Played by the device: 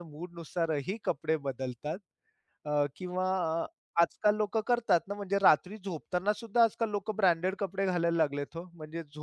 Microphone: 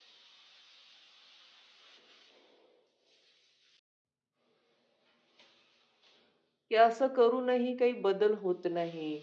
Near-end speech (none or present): present